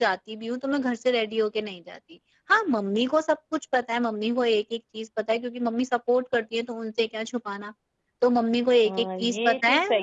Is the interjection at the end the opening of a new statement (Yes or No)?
Yes